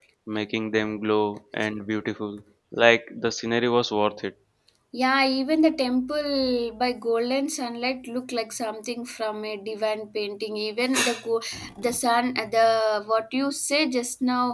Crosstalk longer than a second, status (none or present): none